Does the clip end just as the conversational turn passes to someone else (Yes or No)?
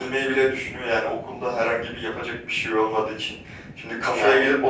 No